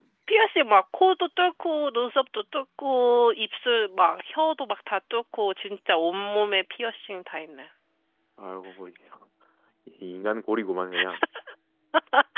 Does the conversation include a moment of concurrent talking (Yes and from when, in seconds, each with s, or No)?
No